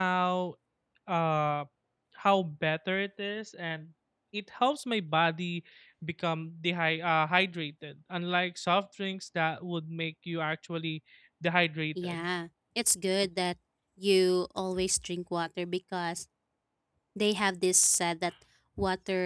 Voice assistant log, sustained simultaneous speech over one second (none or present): none